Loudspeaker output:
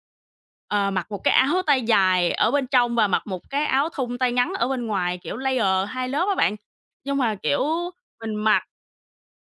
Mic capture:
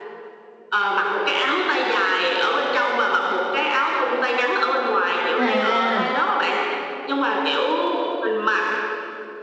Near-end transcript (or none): À.